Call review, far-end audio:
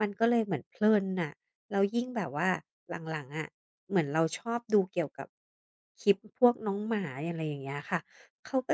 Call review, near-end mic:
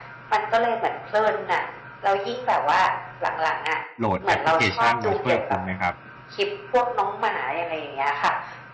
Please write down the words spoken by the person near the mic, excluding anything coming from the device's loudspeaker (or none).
โหลดแอปพลิเคชันมาช่วยคุณไหมครับ